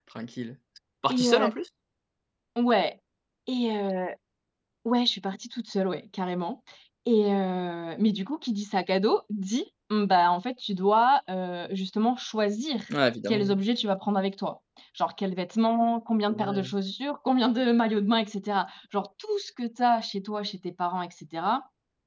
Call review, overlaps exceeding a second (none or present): none